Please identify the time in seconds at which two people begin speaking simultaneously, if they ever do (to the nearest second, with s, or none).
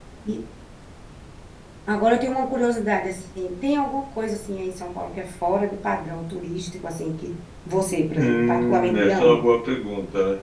8 s